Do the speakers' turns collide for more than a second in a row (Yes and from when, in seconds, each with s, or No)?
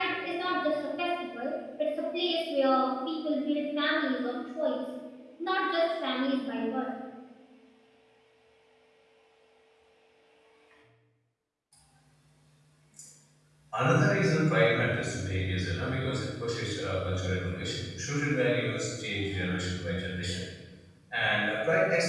No